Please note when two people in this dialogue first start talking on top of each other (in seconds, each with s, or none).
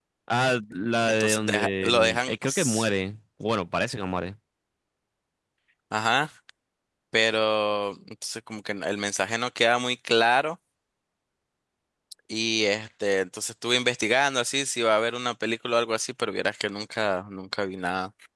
1.1 s